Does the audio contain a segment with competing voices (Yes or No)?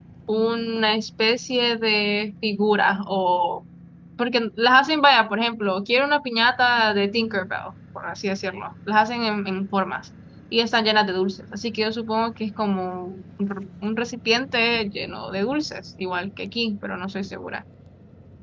No